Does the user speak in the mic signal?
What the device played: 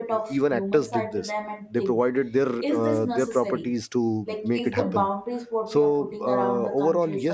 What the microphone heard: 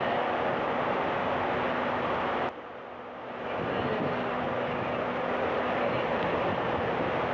No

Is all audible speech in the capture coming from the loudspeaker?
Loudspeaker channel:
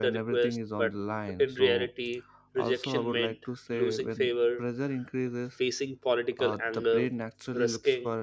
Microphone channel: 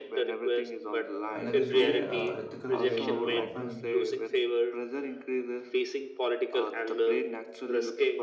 No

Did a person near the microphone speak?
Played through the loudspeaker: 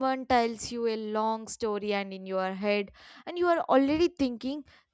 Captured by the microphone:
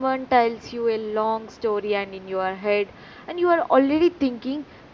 No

